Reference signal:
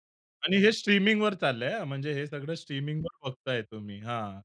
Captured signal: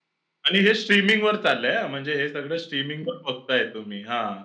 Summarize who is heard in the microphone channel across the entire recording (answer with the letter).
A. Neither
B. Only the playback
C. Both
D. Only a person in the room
B